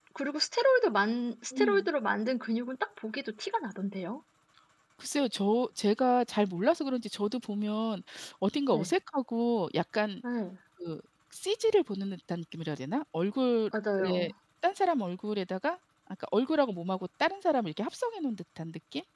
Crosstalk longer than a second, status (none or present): none